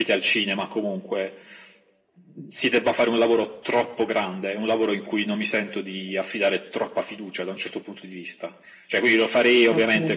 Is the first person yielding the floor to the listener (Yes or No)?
No